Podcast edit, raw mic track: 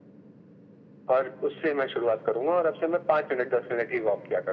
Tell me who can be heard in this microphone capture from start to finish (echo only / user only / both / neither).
echo only